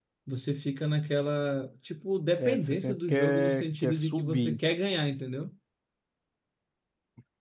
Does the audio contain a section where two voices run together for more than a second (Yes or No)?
Yes